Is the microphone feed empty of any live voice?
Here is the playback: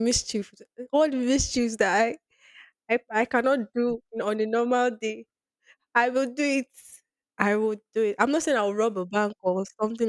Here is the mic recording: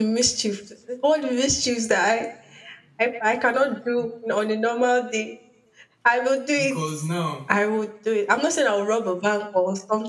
No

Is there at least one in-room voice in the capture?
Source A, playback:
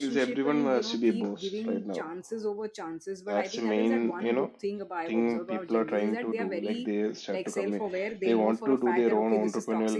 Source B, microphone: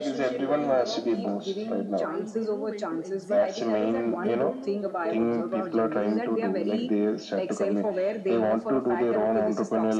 Yes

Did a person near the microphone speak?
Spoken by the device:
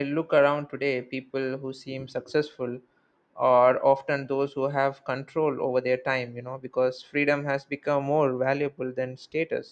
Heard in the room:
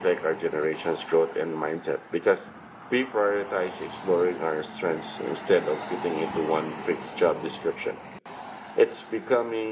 Yes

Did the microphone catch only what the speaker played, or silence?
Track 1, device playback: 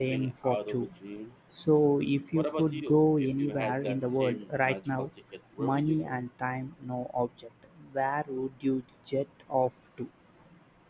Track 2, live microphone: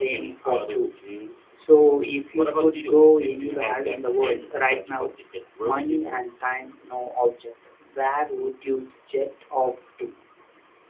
Yes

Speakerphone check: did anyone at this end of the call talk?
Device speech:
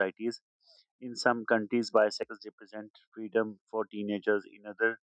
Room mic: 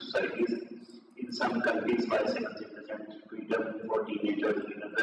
No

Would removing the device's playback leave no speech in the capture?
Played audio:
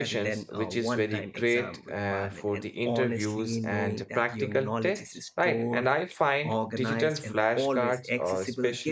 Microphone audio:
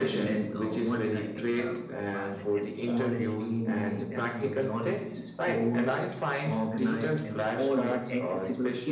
Yes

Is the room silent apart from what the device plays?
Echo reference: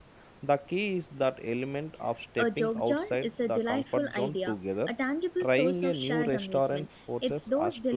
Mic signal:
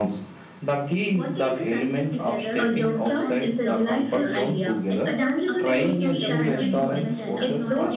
No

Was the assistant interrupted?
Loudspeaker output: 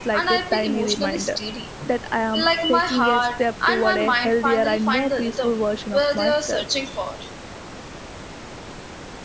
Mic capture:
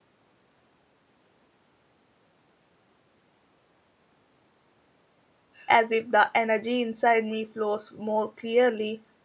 Yes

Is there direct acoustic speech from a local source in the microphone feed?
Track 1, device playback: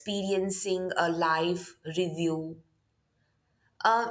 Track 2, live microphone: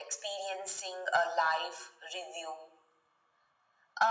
No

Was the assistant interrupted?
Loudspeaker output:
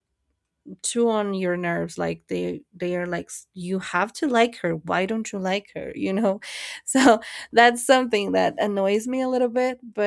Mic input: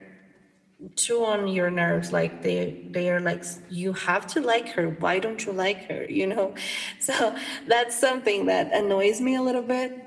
No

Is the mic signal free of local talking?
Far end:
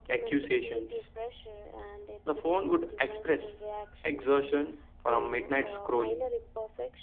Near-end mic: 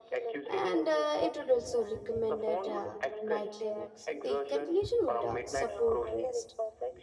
No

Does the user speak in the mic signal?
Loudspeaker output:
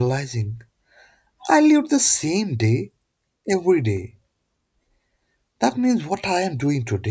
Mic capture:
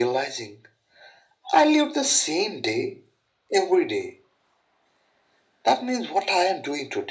No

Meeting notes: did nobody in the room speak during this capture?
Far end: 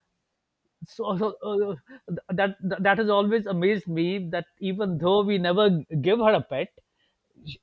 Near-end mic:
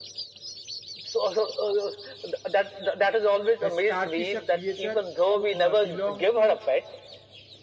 No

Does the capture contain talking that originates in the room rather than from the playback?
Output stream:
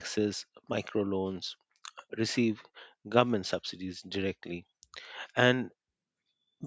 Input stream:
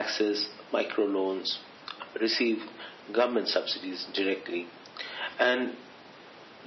No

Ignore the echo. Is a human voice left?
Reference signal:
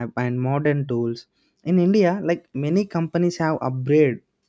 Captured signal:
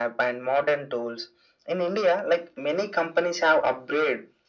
No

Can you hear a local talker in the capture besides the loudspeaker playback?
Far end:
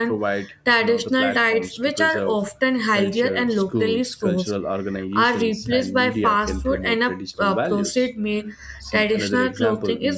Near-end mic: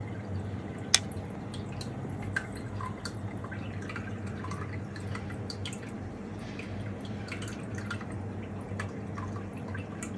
No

